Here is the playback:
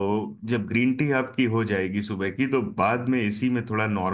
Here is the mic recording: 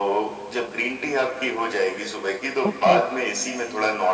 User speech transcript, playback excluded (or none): ओके